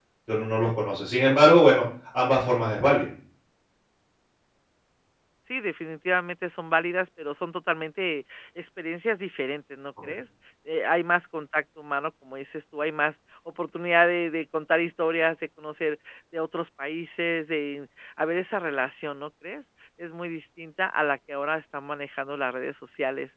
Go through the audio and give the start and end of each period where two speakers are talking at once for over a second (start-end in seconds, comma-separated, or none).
none